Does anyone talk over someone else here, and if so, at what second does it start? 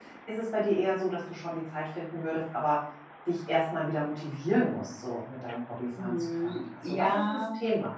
6.0 s

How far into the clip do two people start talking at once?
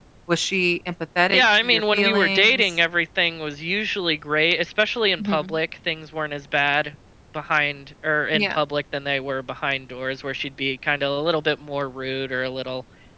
1.3 s

